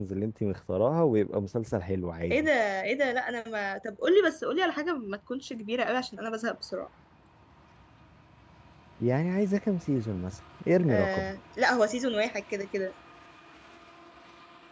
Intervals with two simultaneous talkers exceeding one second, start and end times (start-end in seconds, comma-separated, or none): none